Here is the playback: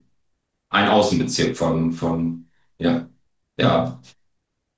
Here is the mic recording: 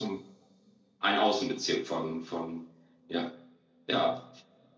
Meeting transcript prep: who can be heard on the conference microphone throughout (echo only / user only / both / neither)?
echo only